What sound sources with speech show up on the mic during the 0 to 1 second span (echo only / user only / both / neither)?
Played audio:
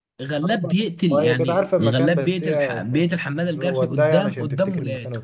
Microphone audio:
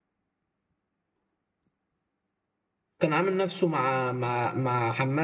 neither